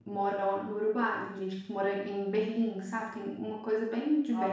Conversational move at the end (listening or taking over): taking over